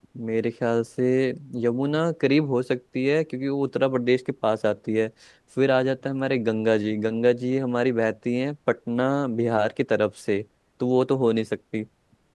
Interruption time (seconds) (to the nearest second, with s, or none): none